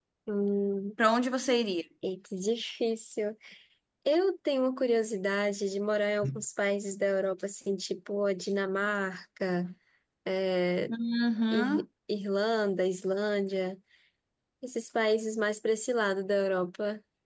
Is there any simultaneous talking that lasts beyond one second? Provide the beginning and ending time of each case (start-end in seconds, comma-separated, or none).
none